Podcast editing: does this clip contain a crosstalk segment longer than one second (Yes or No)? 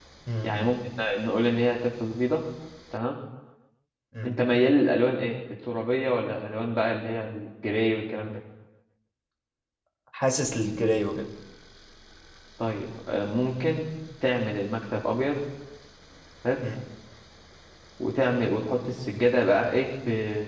No